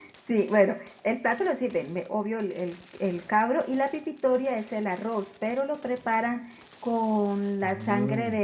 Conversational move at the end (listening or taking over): listening